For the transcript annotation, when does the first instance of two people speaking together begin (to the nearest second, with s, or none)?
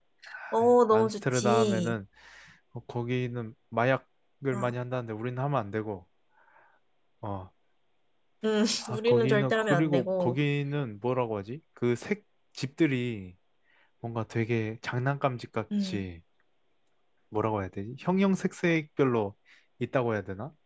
1 s